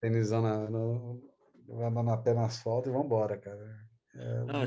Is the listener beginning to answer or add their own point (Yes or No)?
Yes